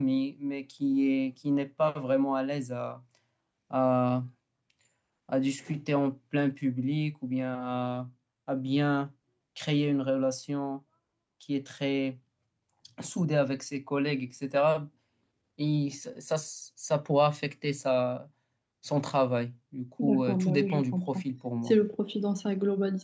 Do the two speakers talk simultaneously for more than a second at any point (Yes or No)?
Yes